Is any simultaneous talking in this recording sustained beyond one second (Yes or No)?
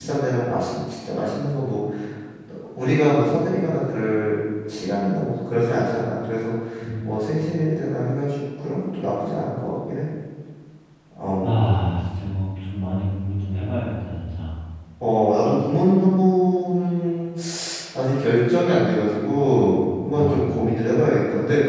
No